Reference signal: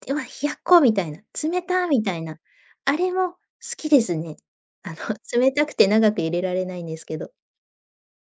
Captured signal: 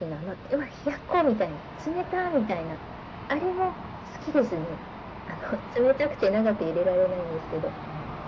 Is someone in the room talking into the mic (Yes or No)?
No